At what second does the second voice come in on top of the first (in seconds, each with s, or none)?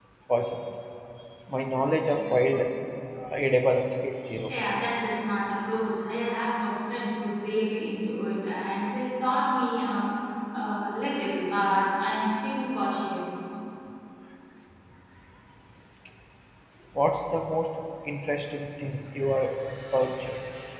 none